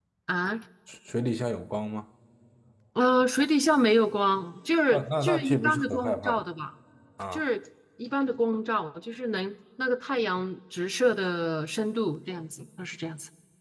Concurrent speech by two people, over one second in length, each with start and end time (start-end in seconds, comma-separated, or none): 4.9-6.4